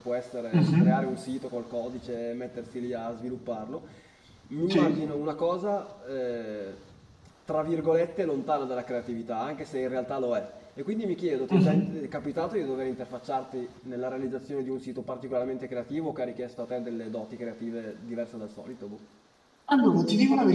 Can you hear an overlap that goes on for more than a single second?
No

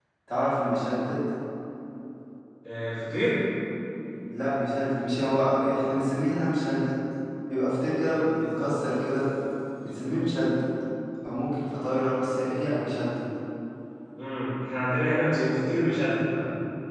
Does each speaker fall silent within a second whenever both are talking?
Yes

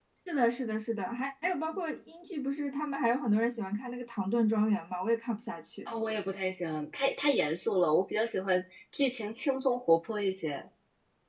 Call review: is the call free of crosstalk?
Yes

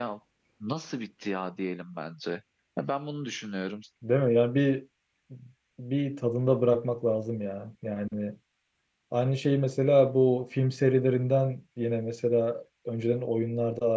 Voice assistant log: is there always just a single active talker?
Yes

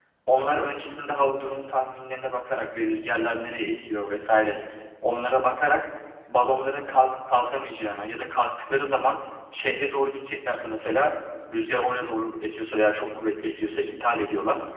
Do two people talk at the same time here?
No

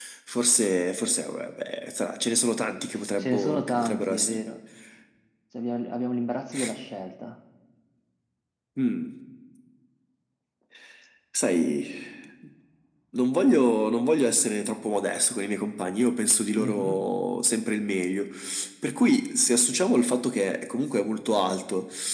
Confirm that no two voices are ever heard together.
No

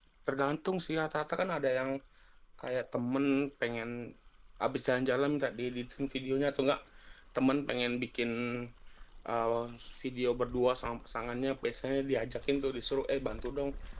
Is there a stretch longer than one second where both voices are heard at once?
No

